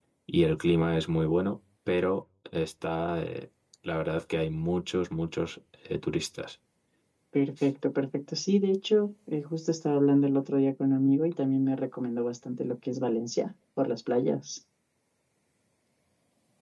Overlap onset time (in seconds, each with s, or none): none